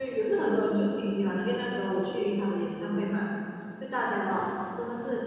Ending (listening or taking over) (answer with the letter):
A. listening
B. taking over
A